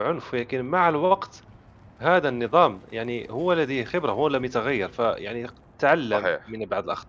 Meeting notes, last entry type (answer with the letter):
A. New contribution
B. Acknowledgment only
B